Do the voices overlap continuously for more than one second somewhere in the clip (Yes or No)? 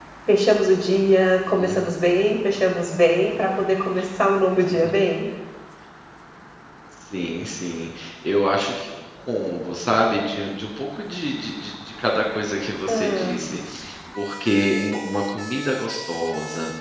No